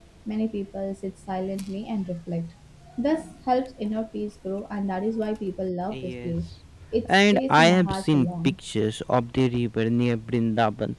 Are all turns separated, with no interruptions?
No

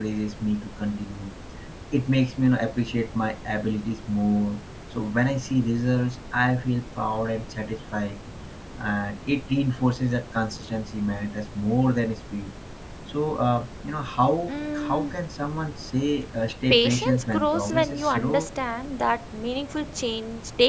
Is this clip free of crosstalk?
No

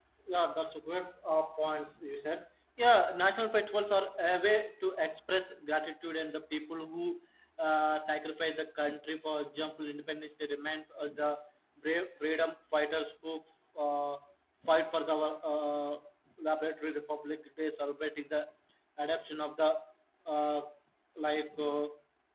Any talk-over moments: No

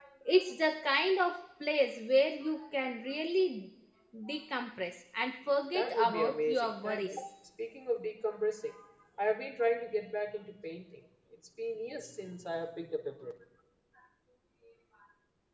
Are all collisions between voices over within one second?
No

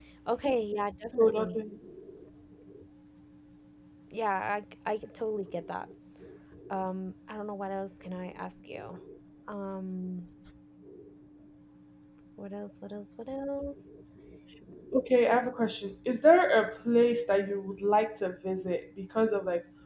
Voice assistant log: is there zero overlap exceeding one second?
Yes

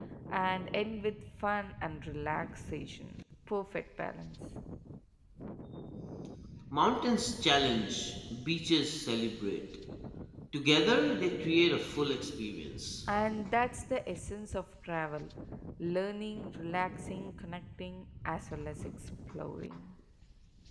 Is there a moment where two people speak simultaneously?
No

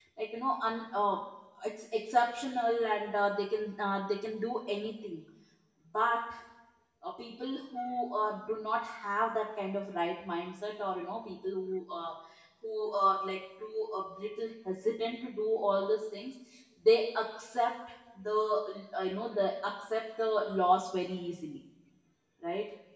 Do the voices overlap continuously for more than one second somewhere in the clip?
No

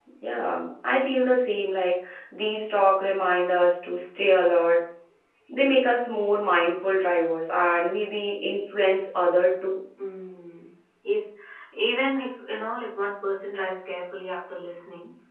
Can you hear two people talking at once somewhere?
No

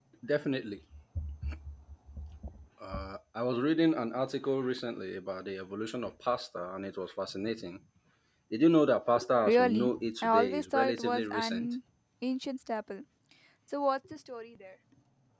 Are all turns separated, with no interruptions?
No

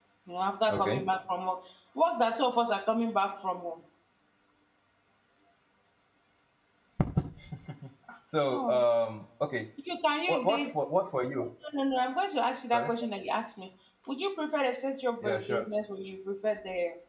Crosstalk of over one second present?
No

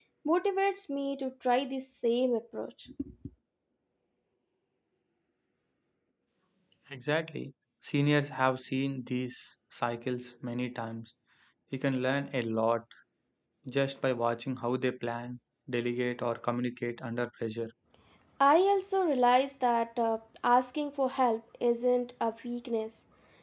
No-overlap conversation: Yes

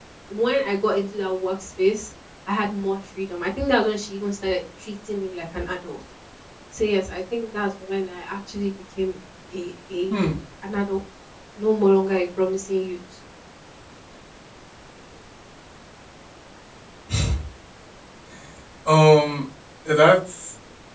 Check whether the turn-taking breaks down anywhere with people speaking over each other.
No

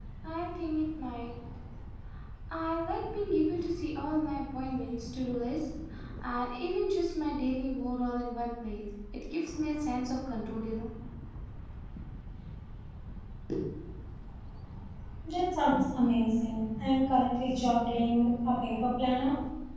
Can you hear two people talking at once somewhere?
No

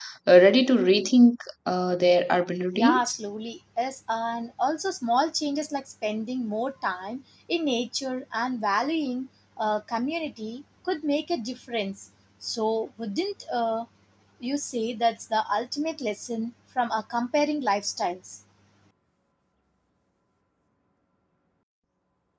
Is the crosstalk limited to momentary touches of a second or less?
Yes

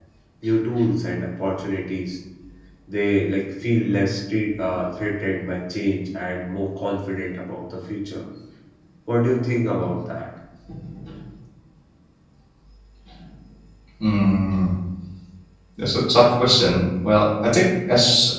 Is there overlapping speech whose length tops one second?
No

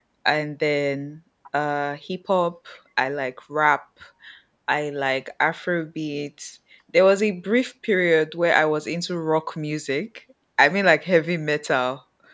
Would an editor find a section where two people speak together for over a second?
No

